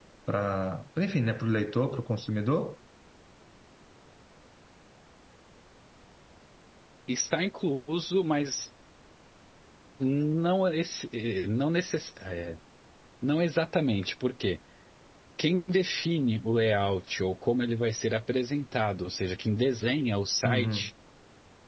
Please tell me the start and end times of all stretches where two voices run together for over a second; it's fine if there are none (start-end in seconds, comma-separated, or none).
none